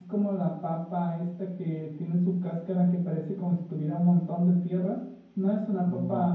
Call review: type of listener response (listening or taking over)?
listening